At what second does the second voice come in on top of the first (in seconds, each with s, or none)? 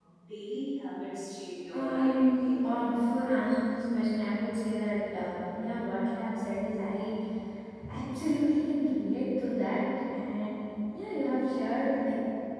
1.7 s